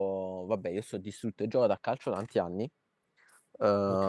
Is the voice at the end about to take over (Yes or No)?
No